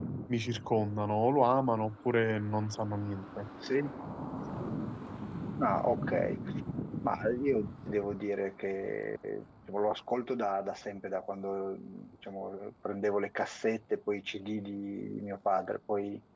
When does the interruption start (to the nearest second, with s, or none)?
none